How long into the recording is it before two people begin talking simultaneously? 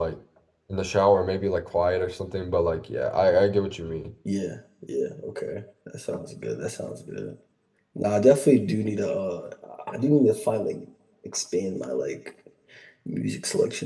none

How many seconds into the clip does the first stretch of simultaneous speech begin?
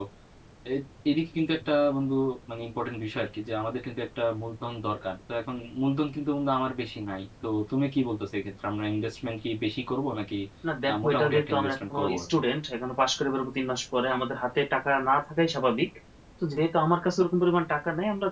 10.9 s

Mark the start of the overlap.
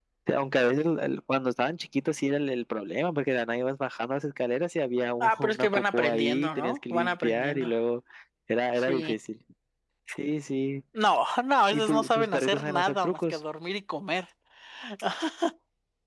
5.2 s

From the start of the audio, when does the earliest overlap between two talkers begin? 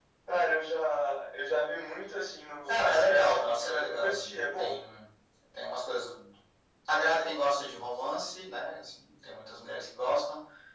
2.7 s

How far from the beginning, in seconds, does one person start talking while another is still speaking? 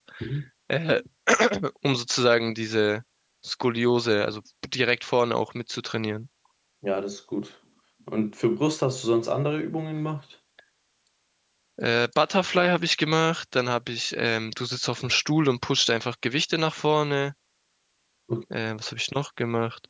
none

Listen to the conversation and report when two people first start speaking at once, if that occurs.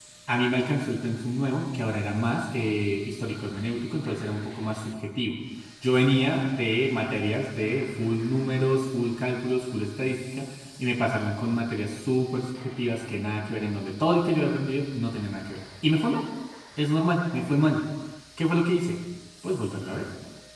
none

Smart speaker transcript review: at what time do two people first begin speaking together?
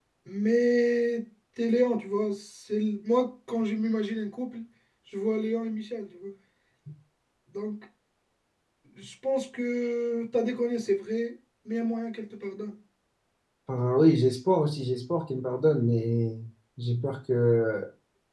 none

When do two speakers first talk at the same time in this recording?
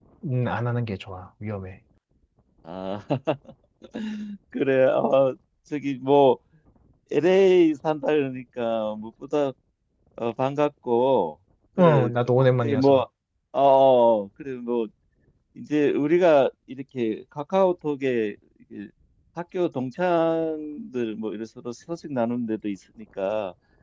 11.8 s

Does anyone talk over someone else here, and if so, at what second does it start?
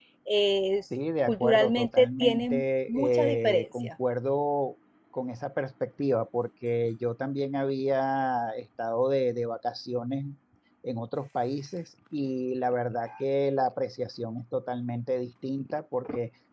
1.3 s

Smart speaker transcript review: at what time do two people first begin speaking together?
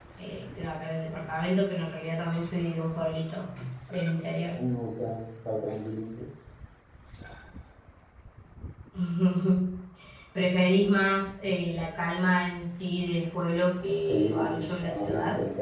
14.1 s

